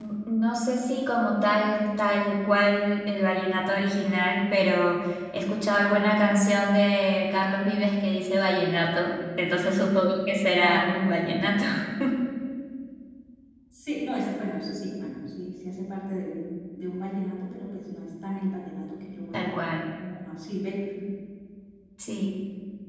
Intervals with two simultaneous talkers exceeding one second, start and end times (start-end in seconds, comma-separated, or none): none